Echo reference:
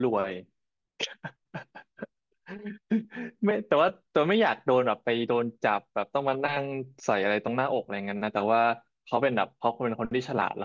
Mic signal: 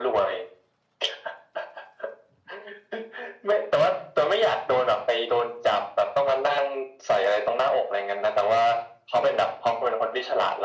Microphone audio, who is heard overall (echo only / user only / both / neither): echo only